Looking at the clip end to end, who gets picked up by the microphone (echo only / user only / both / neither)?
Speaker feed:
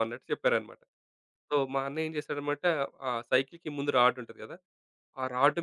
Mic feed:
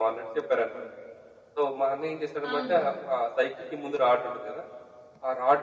both